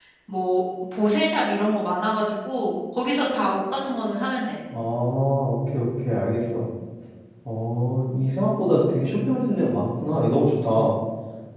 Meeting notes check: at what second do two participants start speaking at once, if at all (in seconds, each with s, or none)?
none